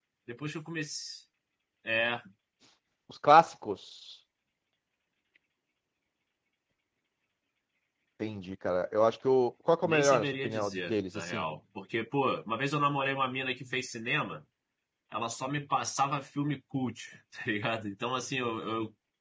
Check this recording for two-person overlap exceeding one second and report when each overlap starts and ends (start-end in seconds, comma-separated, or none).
9.8-11.5